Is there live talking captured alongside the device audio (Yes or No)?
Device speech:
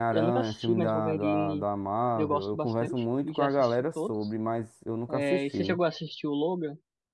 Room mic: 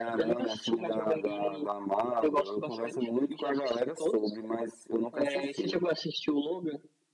No